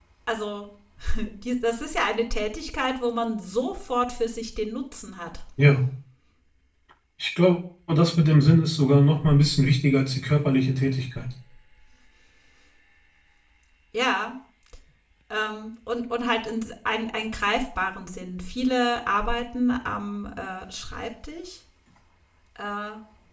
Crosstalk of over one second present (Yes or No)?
No